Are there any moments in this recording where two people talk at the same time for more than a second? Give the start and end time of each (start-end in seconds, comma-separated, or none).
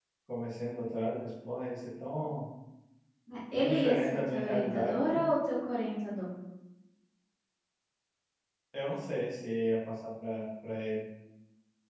3.6-5.2